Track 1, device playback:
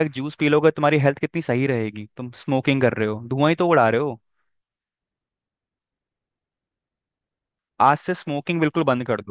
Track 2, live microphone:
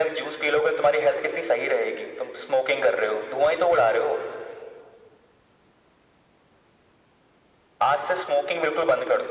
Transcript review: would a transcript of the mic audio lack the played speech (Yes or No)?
No